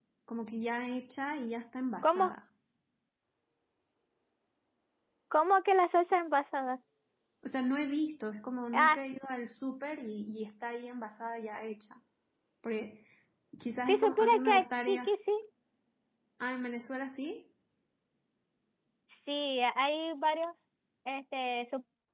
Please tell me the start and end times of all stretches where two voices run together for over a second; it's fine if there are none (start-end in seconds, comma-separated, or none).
13.9-15.1